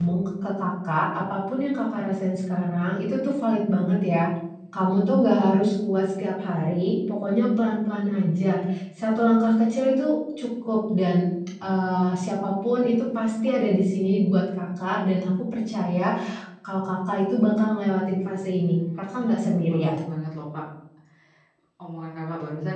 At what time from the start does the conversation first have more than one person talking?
18.6 s

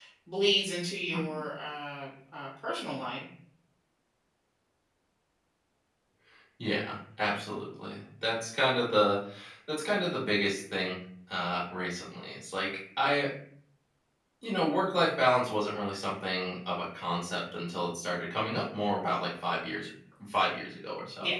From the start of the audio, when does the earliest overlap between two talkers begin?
none

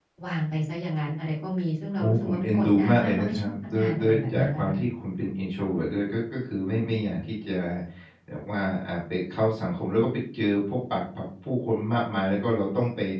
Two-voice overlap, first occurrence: 2.0 s

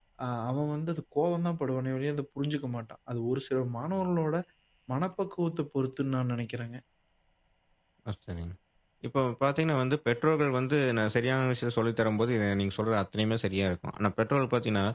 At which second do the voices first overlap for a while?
none

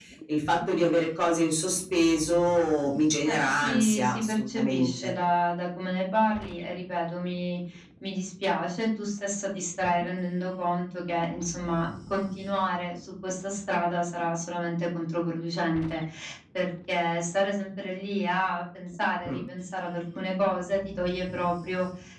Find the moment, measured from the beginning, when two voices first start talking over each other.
3.2 s

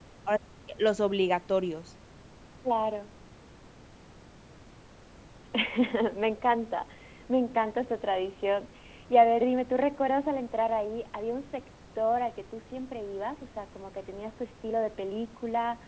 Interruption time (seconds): none

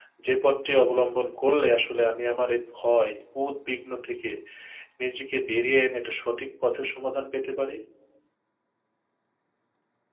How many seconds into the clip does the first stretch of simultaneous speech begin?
none

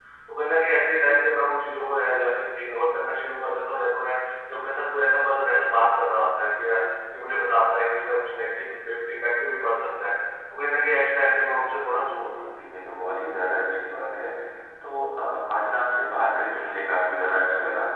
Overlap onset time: none

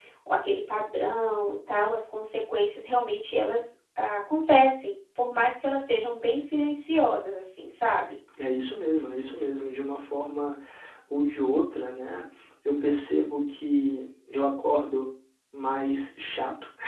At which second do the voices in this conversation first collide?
none

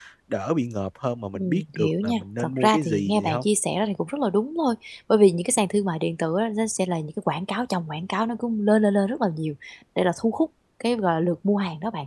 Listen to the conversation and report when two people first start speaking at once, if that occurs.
1.4 s

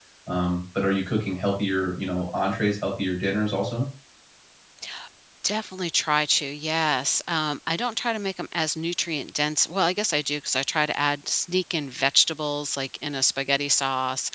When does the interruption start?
none

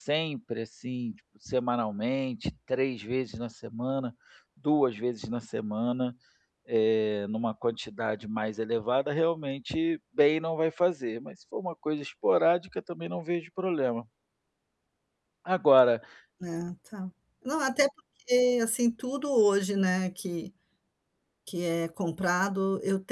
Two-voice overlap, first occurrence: none

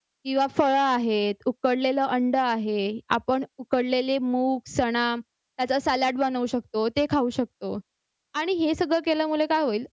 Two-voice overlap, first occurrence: none

